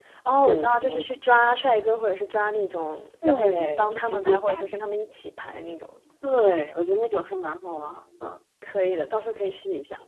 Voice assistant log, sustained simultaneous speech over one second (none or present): present